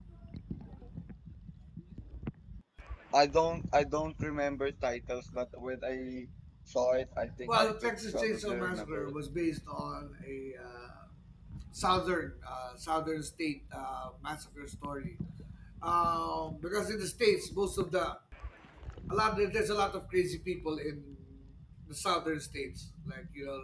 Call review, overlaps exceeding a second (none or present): present